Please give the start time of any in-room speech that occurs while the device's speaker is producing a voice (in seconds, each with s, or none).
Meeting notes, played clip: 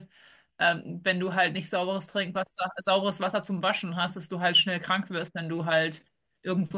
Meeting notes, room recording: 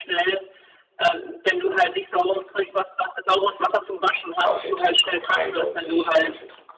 4.4 s